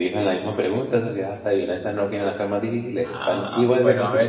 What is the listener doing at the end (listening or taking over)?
taking over